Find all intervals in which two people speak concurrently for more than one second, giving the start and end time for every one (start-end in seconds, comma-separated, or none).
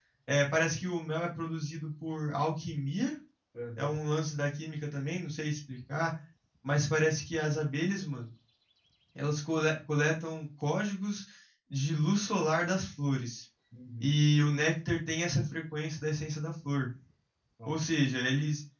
none